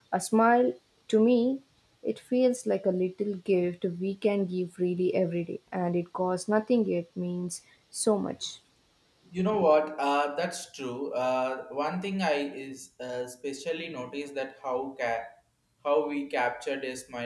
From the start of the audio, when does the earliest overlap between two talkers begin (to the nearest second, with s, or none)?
none